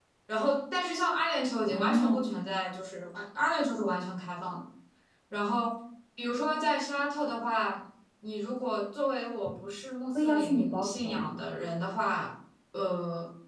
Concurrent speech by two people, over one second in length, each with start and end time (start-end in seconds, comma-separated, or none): 10.2-11.4